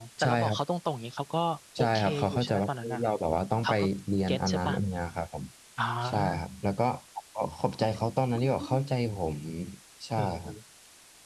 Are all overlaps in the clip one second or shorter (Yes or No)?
No